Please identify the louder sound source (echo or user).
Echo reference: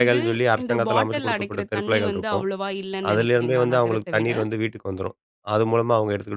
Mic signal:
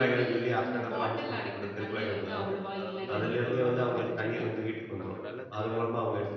echo